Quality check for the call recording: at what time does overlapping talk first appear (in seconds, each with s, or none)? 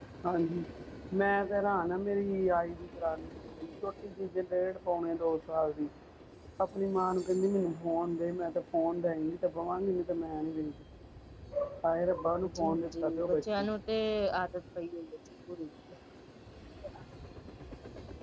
12.4 s